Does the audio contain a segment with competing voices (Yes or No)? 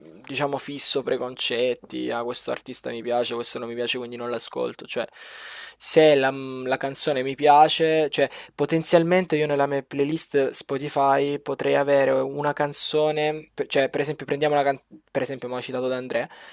No